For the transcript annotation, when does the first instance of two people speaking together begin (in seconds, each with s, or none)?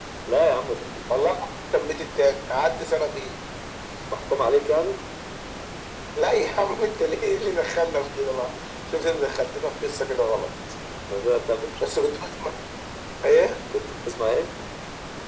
none